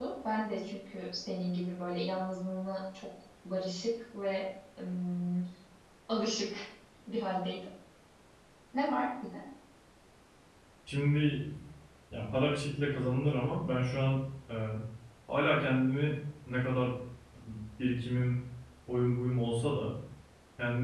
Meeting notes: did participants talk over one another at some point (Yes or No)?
No